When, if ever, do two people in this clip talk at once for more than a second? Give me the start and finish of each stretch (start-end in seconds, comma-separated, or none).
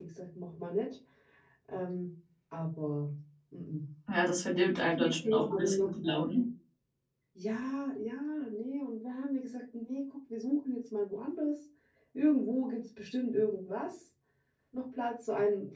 5.0-6.2